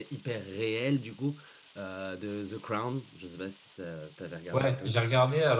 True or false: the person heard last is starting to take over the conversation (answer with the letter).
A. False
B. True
B